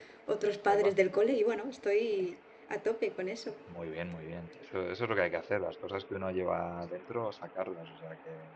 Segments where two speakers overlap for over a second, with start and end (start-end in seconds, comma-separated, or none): none